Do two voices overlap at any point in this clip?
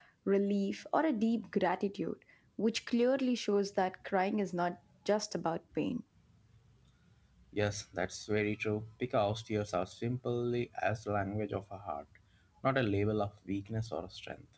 No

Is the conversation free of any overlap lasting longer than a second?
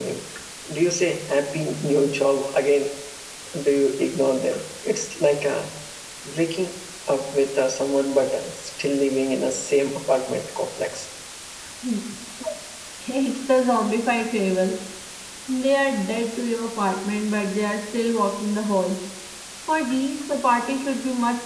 Yes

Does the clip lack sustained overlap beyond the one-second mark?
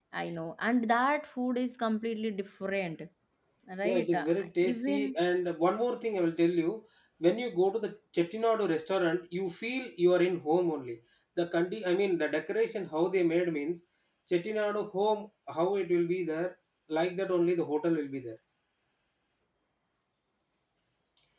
Yes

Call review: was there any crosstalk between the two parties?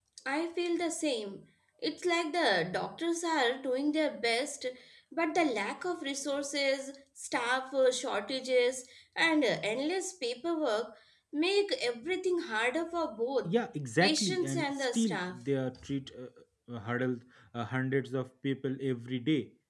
Yes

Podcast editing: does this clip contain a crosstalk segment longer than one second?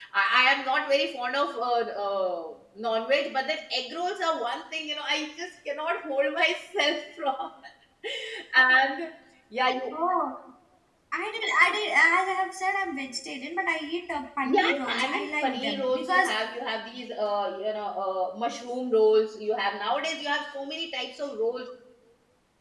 Yes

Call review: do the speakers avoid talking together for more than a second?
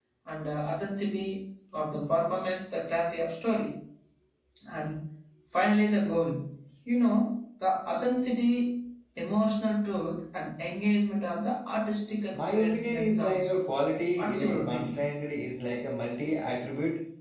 No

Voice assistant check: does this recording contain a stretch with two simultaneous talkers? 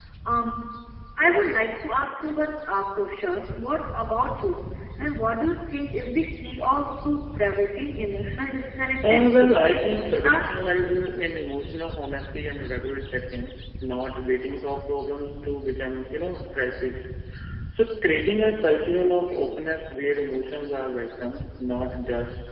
Yes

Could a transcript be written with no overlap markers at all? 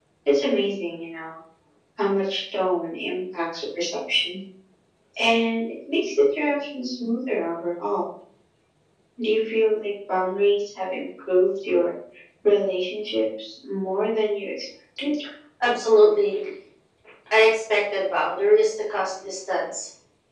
Yes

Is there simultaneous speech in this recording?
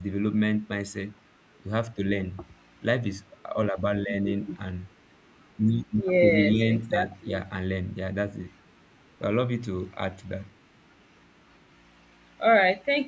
Yes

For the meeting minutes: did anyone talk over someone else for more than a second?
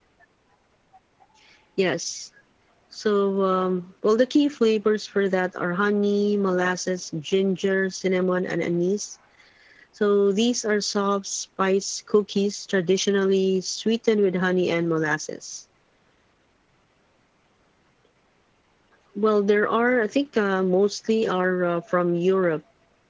No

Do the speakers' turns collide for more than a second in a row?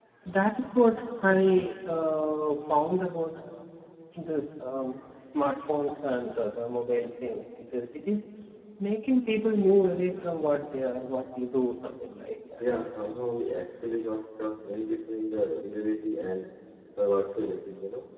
No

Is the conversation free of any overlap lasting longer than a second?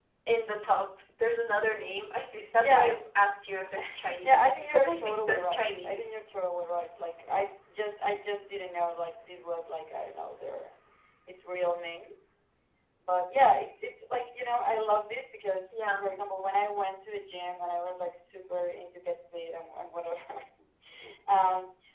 No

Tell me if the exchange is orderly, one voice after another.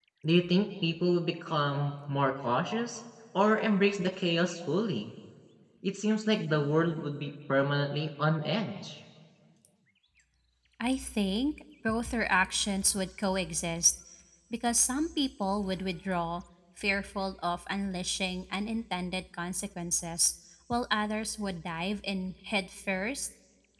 Yes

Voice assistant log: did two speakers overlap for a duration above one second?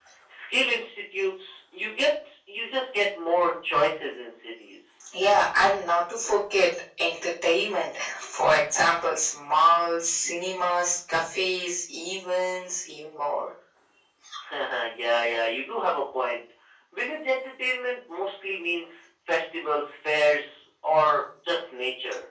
No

